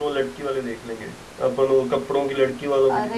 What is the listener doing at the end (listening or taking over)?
taking over